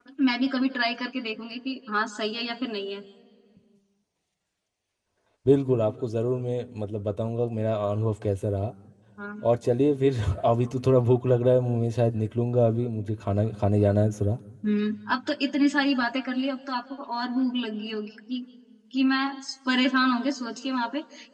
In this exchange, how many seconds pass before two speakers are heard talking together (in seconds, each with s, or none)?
none